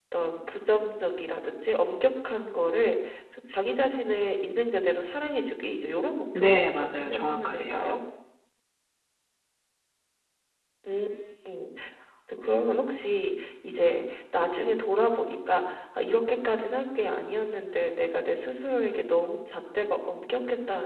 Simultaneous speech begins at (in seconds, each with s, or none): 6.3 s